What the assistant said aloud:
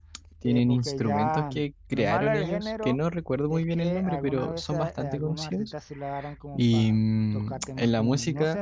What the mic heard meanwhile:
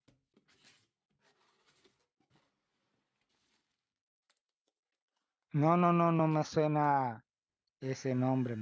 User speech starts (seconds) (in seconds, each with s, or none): 5.5 s